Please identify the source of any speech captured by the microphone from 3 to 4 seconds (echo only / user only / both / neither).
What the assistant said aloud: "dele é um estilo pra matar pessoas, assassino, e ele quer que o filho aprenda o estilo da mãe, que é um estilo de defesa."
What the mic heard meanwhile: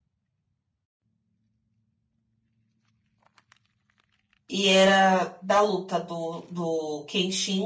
neither